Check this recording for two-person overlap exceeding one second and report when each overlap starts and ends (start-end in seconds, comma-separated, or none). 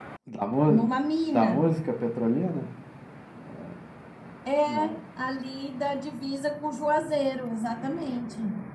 none